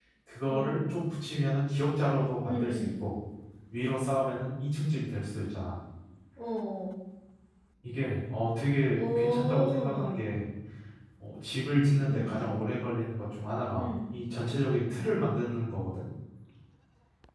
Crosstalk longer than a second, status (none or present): present